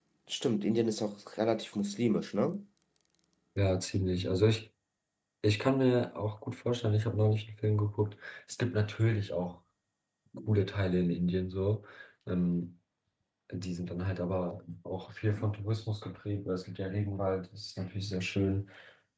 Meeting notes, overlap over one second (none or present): none